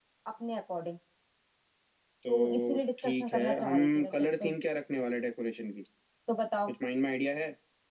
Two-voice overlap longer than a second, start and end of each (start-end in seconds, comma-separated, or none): 2.3-4.5